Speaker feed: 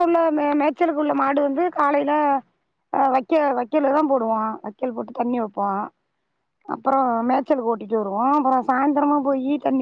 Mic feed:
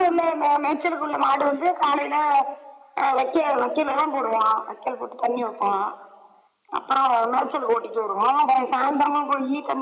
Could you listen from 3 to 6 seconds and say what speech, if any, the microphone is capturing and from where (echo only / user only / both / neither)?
echo only